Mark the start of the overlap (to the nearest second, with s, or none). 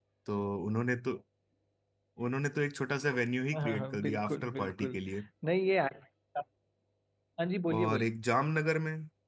4 s